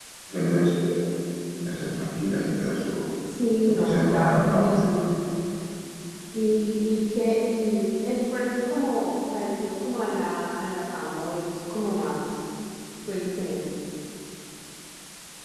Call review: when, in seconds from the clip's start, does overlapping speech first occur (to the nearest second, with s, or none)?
4 s